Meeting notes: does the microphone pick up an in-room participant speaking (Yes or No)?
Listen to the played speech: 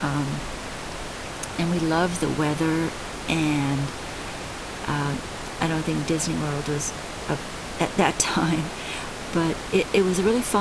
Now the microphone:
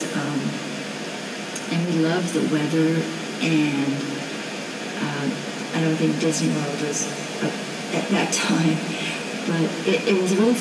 No